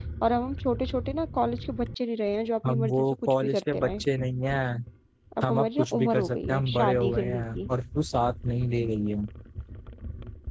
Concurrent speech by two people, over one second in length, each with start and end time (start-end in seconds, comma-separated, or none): 2.6-3.9, 5.4-7.6